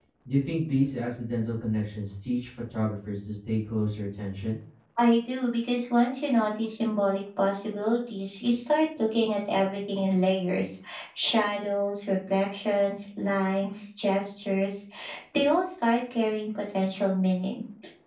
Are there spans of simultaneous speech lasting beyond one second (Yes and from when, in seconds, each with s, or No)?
No